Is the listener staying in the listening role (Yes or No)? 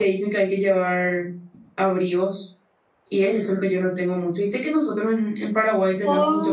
No